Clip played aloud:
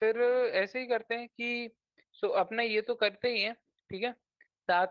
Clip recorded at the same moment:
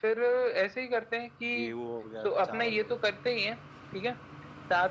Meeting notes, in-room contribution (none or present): present